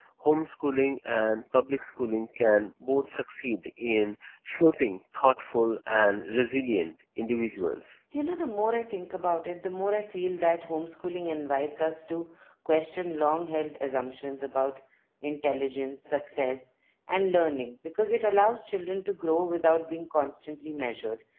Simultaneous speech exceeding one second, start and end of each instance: none

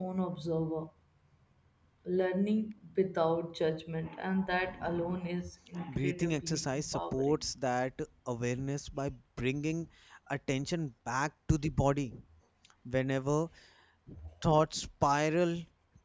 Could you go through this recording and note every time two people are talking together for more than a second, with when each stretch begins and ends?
5.9-7.4

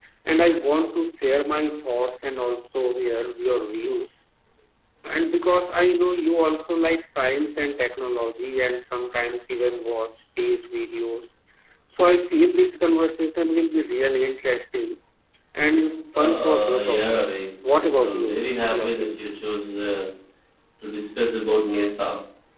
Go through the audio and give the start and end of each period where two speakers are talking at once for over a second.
16.1-17.4, 18.0-19.2

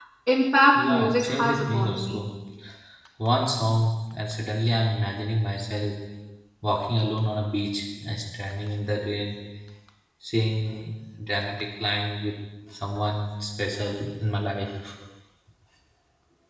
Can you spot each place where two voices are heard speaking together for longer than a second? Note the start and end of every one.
0.8-2.2

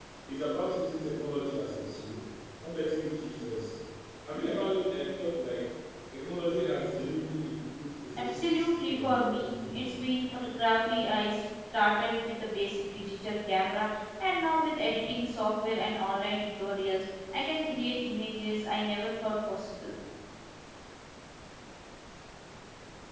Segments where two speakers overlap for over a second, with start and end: 8.3-9.9

